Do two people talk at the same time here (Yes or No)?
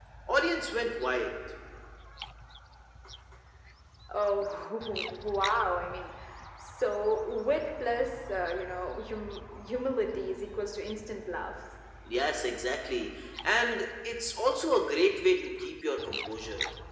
No